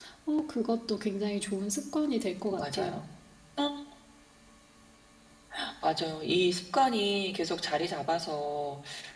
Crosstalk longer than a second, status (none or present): none